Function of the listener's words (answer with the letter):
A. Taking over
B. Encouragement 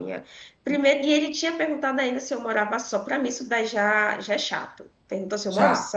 B